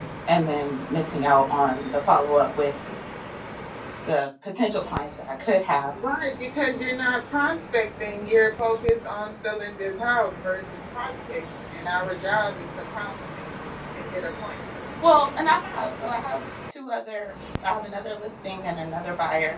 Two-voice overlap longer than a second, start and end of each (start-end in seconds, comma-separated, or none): none